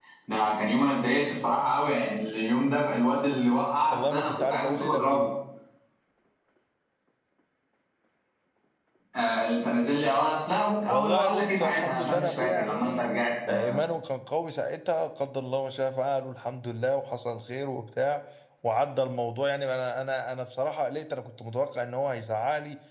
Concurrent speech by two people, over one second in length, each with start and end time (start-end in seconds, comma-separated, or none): 3.9-5.3, 10.9-13.0